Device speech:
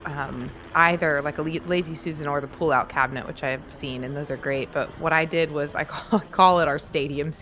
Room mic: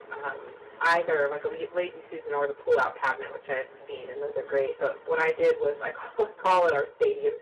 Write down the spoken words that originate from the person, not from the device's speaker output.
none

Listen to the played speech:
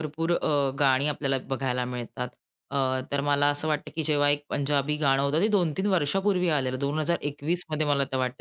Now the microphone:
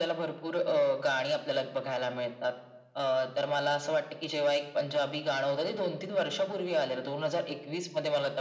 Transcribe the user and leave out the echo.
none

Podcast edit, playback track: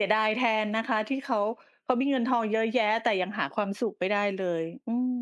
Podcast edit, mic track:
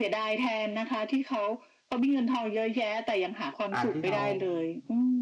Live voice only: อะที่เรา

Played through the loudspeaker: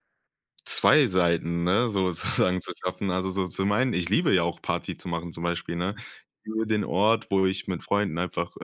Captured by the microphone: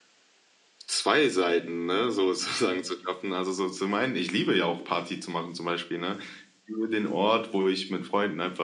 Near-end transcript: none

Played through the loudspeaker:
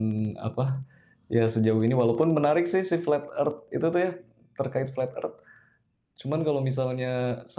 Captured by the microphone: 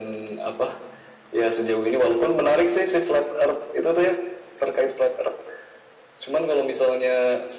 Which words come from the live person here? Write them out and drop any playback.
none

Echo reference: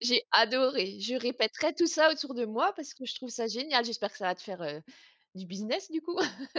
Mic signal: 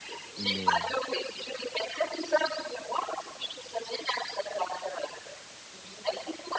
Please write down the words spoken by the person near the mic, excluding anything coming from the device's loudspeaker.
Mais heu

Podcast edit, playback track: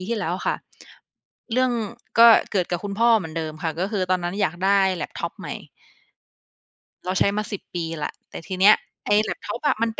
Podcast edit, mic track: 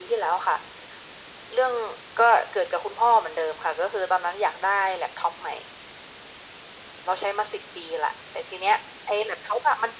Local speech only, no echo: none

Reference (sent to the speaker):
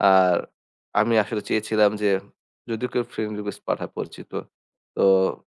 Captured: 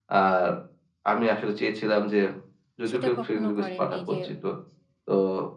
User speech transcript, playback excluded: সেটা কখনো করেননি? যে

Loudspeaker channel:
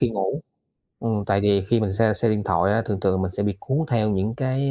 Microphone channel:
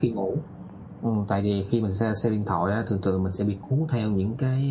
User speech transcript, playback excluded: none

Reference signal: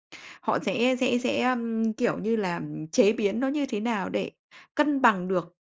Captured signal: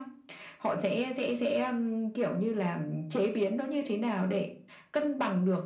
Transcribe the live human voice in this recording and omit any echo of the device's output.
none

